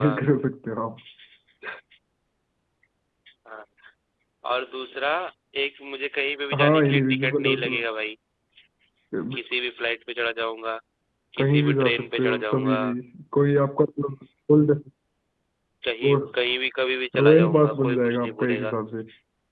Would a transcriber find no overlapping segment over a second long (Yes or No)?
No